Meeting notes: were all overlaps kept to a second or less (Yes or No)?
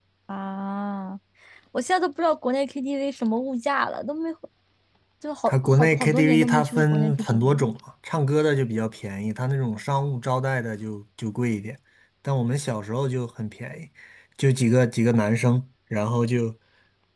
No